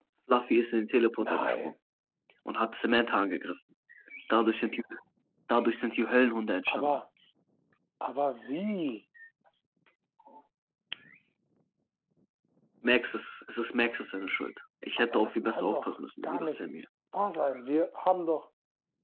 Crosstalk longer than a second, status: present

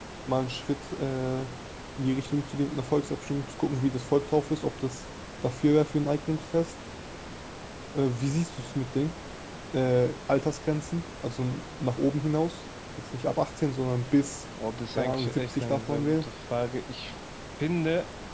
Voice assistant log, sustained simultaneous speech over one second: present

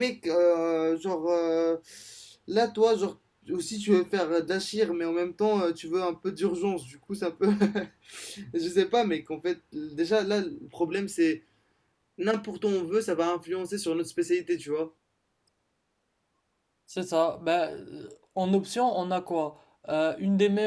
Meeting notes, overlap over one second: none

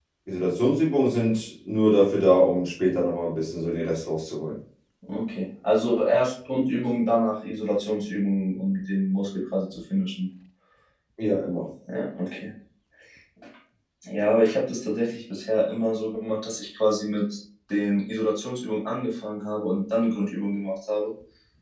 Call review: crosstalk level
none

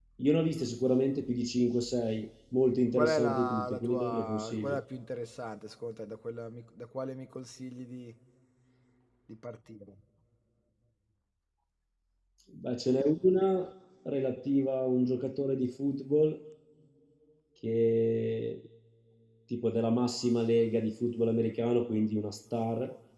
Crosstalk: present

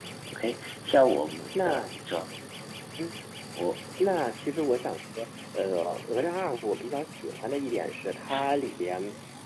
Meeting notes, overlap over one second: none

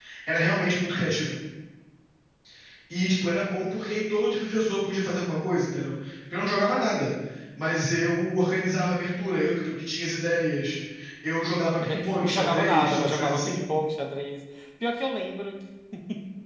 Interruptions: present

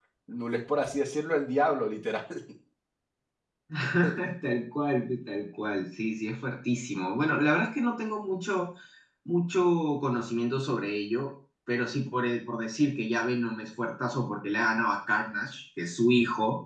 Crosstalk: none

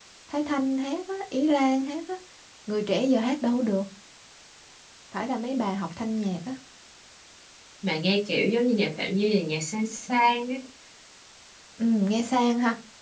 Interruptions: none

